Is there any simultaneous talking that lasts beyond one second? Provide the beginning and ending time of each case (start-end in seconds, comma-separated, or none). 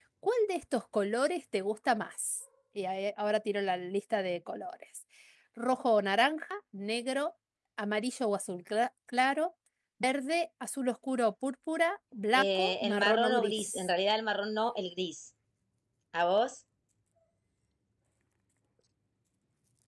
12.3-13.9